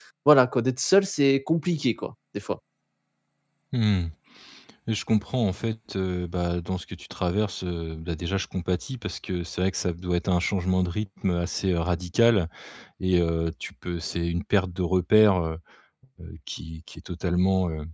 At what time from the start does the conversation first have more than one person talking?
none

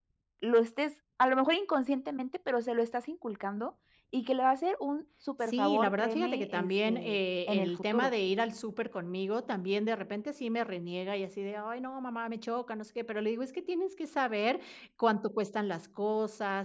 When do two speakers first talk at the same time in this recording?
5 s

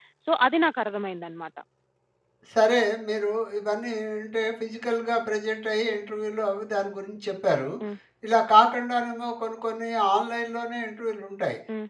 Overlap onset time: none

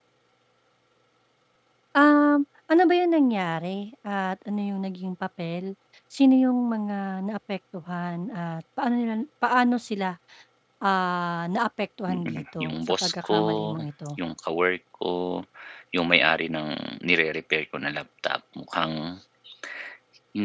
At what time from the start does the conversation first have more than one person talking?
12 s

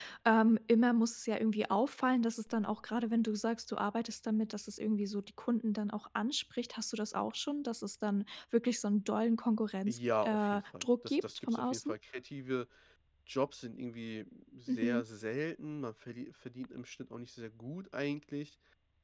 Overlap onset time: 10 s

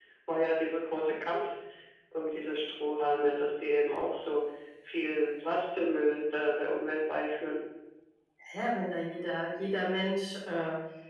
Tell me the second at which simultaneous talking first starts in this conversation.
none

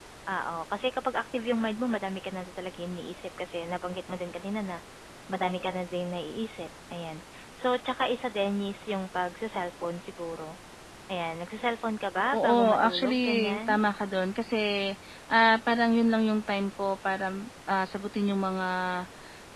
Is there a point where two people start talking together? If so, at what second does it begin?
12 s

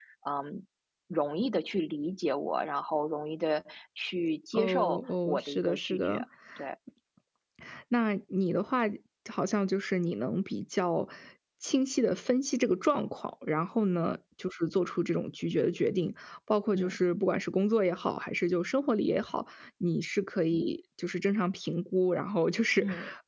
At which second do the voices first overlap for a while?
5 s

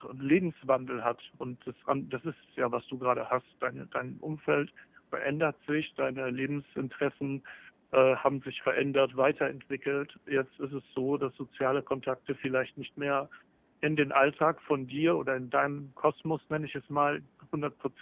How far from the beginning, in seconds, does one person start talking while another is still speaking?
none

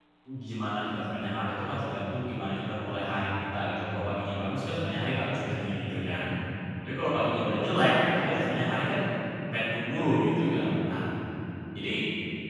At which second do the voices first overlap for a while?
7 s

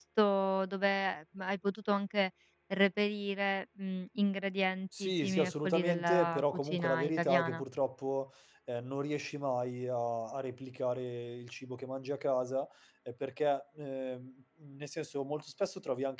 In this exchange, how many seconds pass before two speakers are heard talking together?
5 s

